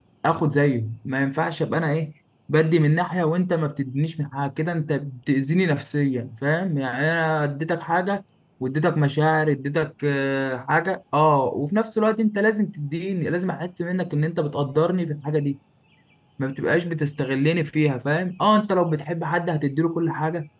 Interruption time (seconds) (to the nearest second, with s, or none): none